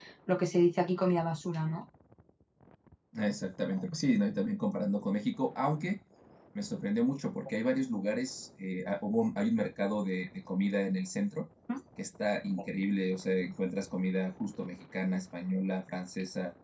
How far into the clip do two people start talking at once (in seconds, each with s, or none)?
none